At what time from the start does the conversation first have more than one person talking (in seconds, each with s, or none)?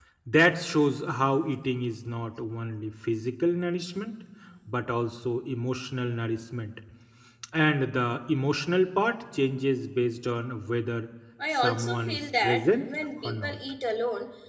11.4 s